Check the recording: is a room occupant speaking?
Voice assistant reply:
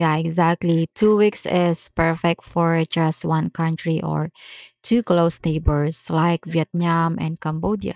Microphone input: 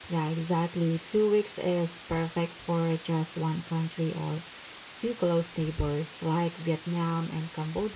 No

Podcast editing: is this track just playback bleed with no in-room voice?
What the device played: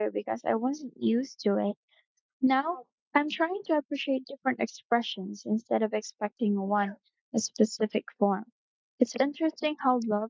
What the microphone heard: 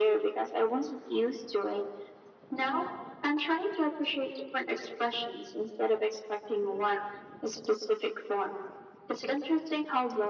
Yes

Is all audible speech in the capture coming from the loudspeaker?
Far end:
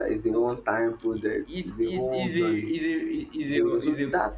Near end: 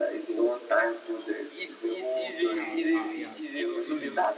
No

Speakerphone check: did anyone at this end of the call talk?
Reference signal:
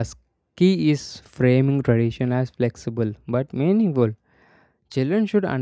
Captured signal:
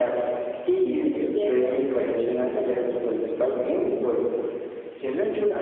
Yes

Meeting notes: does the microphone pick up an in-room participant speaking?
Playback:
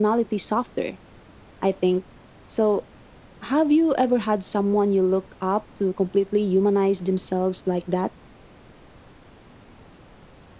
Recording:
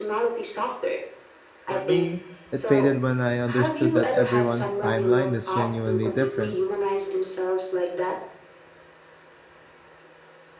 Yes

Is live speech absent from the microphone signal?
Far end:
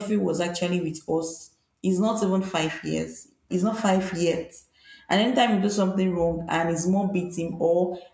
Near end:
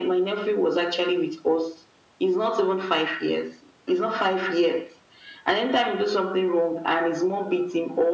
Yes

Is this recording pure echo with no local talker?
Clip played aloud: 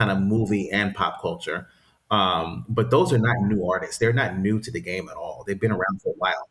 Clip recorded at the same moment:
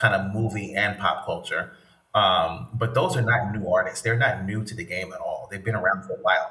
Yes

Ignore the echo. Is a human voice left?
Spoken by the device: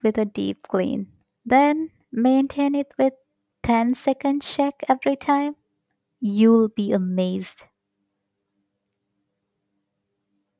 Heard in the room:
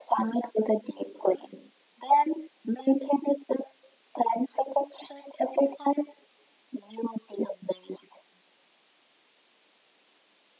No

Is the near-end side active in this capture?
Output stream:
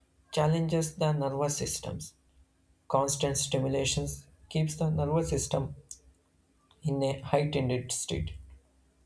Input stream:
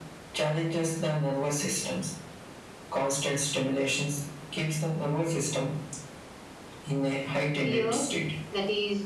Yes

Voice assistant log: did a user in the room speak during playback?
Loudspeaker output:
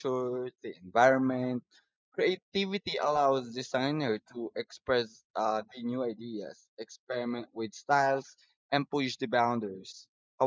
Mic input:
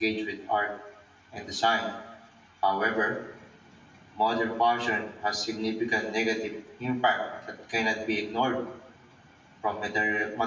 Yes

